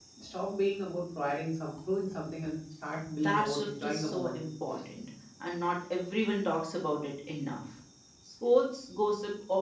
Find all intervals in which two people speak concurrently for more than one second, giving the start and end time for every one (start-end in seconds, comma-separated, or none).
3.0-4.4